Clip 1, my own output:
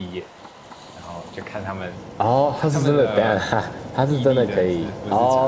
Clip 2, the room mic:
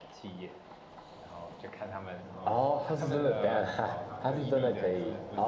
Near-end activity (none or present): present